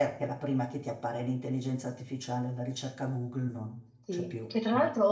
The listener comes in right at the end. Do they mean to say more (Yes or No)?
Yes